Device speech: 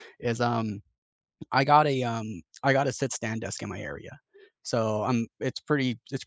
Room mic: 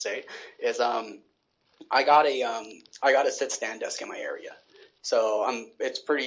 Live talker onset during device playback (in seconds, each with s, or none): none